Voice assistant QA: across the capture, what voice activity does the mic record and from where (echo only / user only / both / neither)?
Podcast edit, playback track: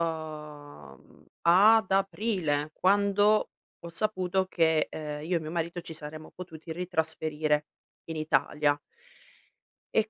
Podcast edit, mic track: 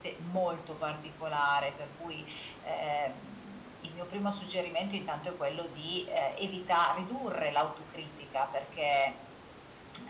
user only